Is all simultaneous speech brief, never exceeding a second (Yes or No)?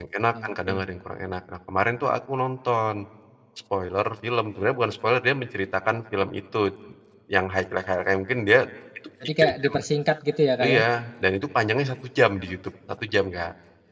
Yes